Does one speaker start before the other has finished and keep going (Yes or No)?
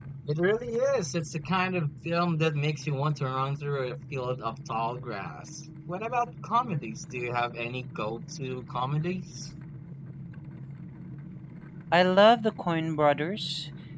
No